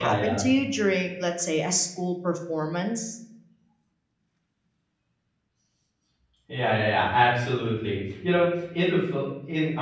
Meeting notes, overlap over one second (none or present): none